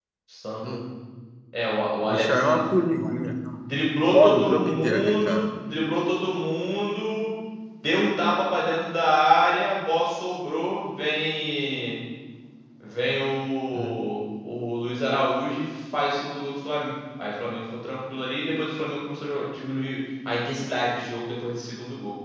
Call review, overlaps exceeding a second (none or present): present